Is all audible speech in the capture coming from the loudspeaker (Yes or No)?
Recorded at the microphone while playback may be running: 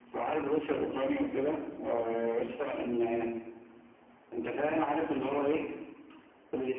Yes